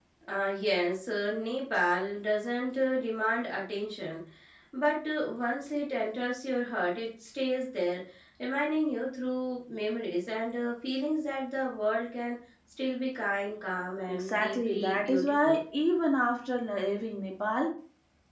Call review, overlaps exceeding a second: present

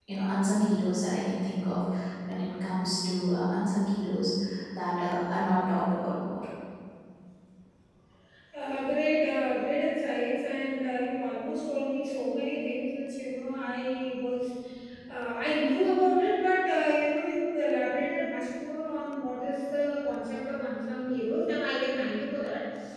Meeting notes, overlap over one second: none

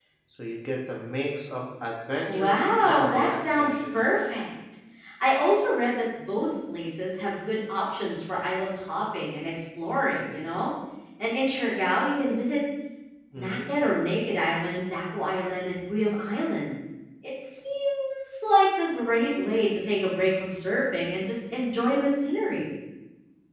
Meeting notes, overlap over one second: present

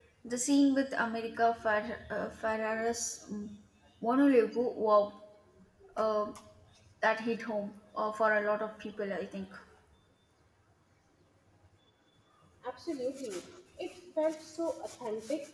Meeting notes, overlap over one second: none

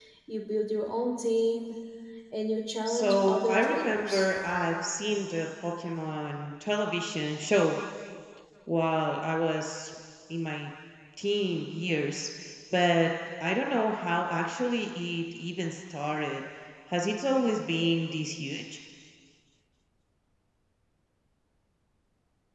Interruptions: present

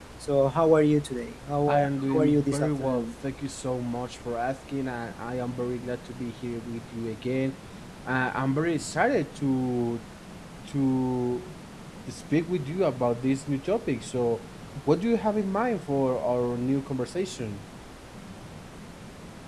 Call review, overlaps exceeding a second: present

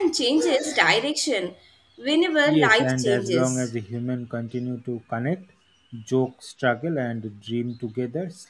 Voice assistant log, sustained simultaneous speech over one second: present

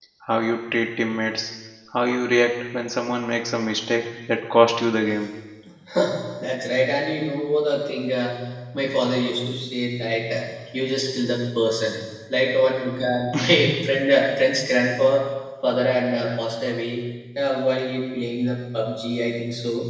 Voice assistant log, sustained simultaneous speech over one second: none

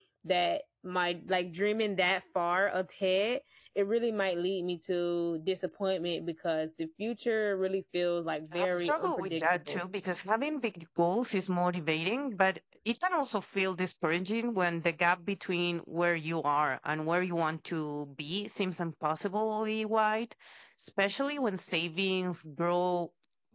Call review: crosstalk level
present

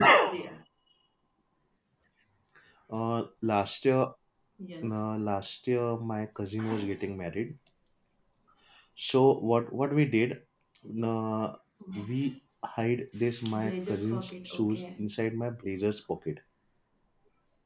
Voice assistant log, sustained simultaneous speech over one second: present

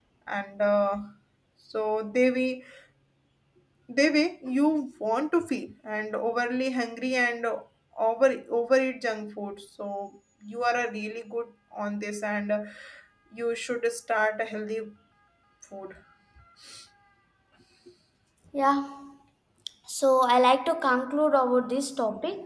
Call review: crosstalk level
none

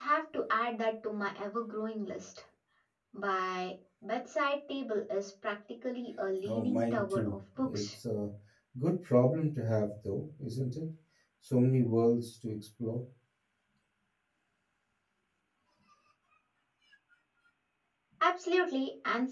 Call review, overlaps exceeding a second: present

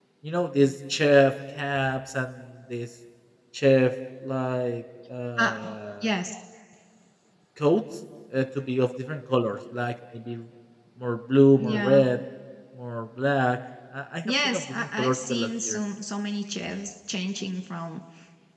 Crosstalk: present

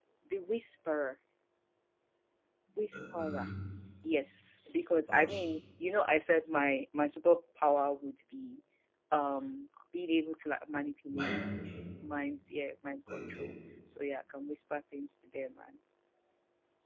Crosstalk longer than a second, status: none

